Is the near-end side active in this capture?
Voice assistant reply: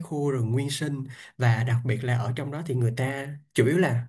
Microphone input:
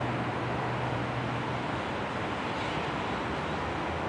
No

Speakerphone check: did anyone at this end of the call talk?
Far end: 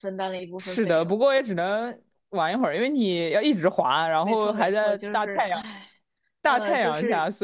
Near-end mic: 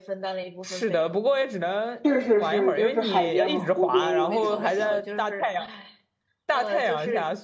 Yes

